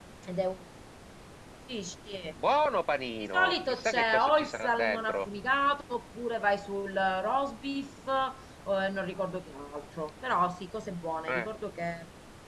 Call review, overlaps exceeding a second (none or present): present